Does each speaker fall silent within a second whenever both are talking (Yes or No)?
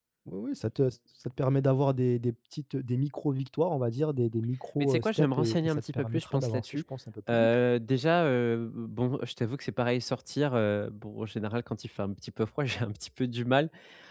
No